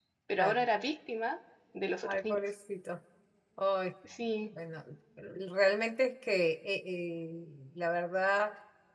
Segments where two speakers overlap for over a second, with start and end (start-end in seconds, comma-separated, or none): none